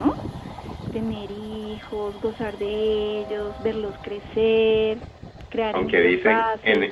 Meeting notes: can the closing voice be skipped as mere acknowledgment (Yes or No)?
No